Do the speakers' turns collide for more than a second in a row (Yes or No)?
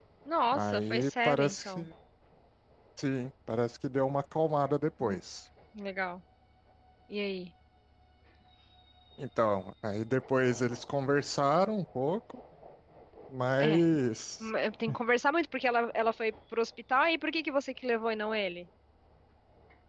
Yes